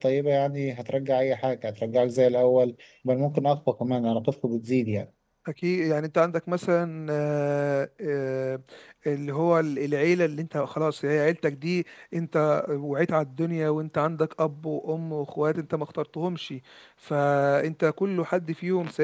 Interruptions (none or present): none